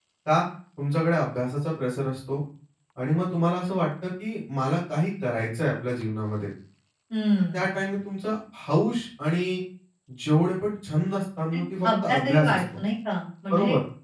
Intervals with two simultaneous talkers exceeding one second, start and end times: 11.5-12.8

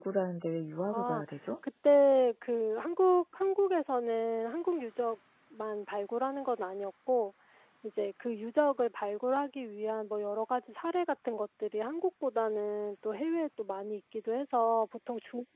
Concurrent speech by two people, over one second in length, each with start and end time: none

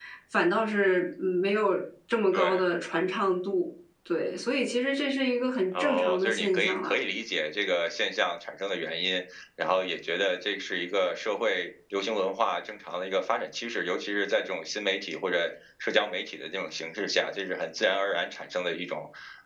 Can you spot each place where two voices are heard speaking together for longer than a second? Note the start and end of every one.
5.8-7.0

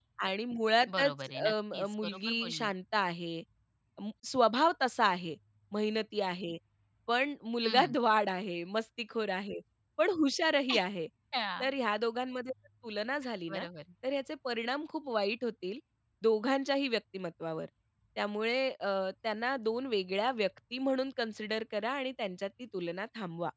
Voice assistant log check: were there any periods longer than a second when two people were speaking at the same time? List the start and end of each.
0.9-2.7

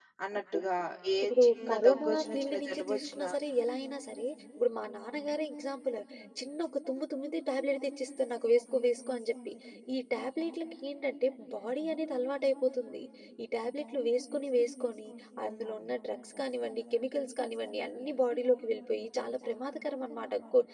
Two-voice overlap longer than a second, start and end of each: 1.4-3.3

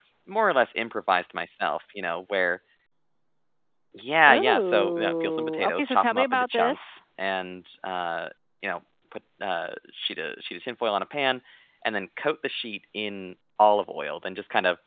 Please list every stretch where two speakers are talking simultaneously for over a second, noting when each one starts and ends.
4.3-7.0

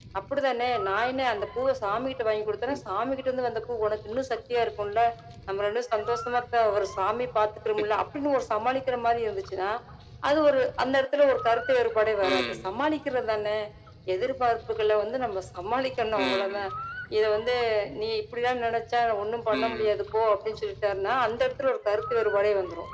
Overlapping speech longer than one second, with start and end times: none

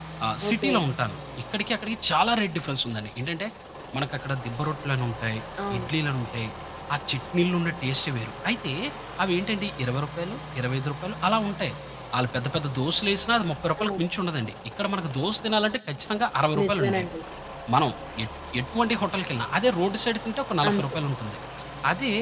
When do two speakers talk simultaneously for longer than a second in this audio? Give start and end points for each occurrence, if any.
none

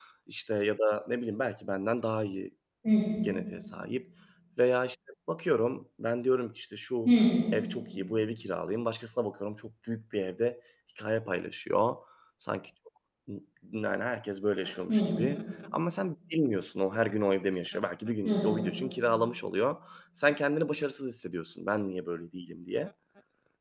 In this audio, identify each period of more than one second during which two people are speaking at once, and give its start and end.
none

